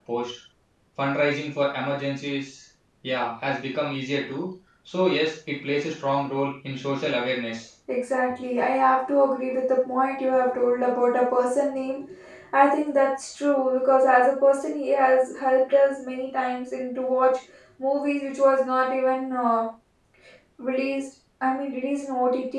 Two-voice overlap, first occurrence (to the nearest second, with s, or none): none